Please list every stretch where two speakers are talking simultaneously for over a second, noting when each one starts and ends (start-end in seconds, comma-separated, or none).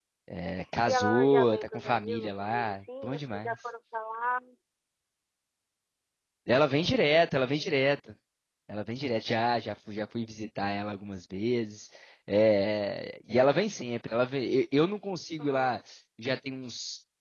0.8-3.6